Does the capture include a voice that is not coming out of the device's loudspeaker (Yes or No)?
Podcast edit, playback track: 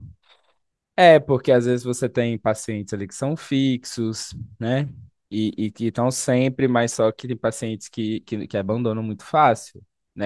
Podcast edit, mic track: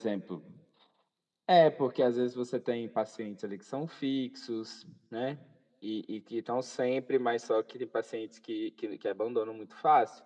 No